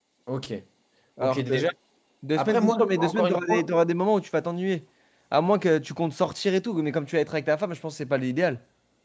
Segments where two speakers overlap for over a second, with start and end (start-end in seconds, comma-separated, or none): 2.4-3.7